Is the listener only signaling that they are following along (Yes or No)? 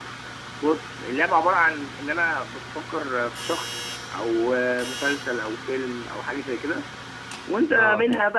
Yes